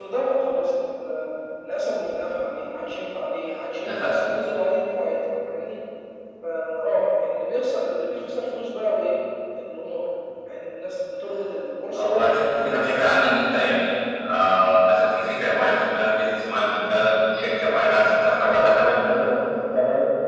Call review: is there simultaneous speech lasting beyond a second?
Yes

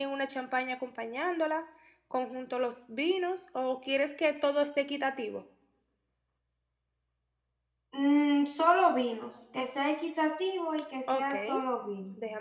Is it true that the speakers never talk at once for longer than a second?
Yes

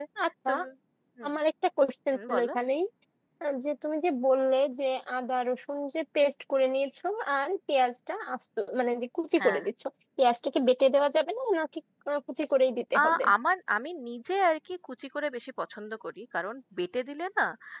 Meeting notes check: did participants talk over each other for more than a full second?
No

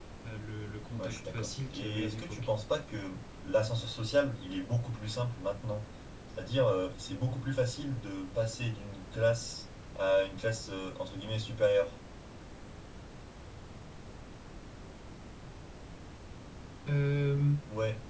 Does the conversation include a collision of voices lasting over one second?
Yes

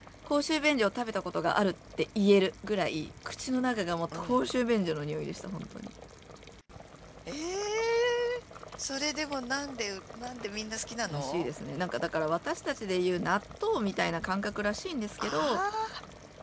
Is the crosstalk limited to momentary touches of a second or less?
Yes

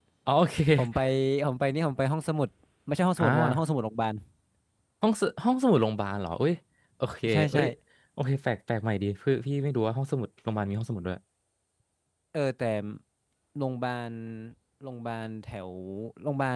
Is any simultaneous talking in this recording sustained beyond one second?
No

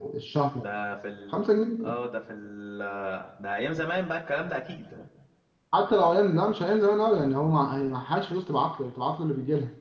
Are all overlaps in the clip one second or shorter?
Yes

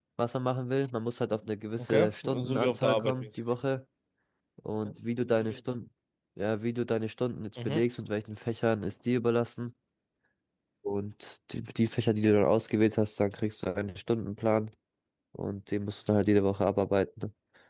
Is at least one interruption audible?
Yes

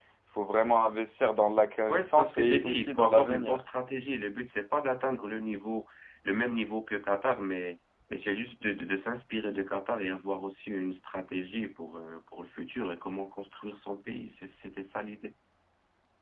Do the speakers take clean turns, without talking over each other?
No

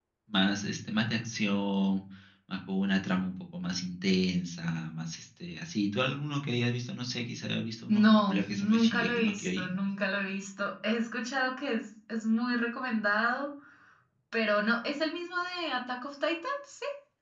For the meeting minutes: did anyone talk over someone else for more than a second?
Yes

